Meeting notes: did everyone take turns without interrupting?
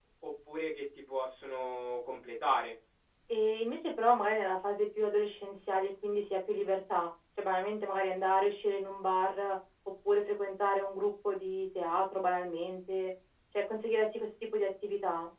Yes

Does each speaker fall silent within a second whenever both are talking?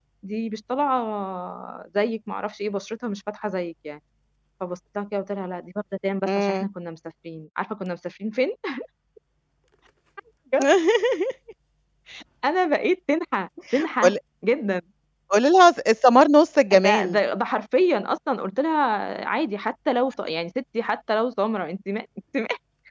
Yes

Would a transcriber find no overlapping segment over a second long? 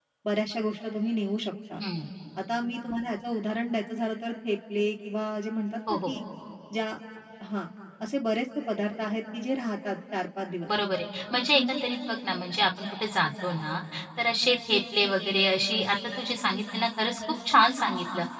Yes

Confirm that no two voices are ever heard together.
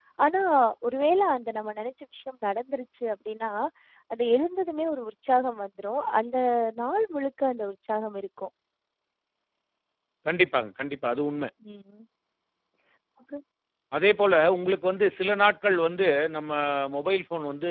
Yes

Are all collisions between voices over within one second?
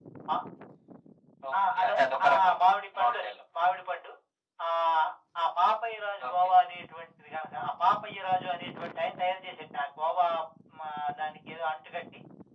Yes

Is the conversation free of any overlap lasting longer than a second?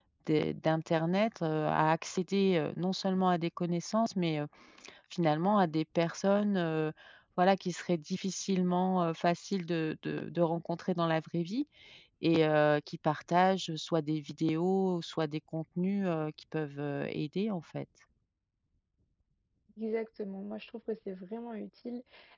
Yes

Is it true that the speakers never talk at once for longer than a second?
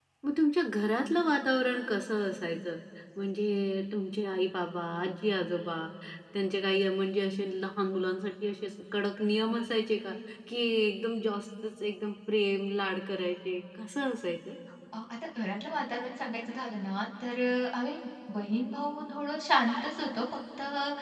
Yes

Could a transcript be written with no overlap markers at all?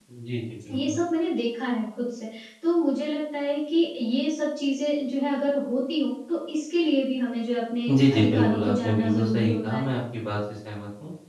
No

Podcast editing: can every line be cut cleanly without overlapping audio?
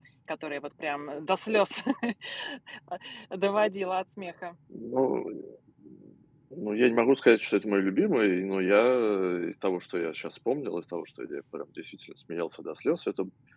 Yes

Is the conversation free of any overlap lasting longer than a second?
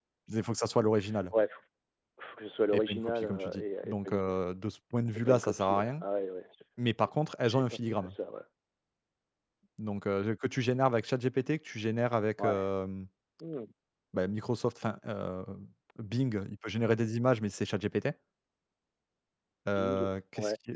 No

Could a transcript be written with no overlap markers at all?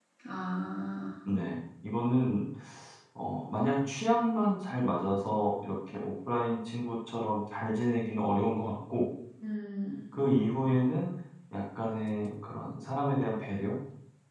Yes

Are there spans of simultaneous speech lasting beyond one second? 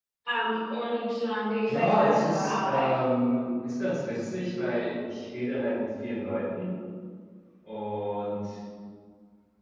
Yes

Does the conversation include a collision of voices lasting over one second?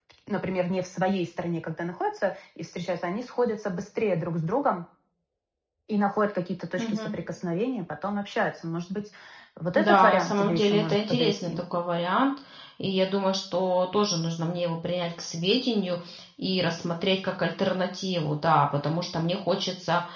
Yes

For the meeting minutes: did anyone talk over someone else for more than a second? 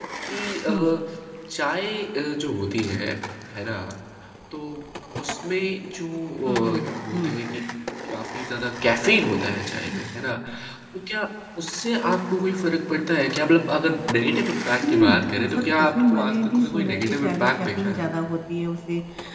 Yes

